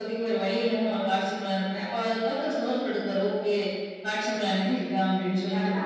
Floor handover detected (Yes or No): No